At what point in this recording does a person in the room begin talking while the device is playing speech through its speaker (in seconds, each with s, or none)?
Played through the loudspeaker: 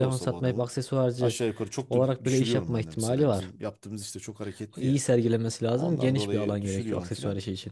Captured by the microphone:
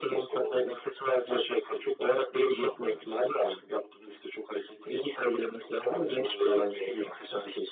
none